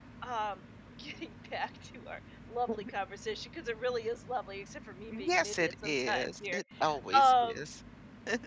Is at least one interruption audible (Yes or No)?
Yes